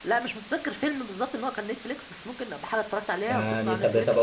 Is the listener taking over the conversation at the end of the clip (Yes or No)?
Yes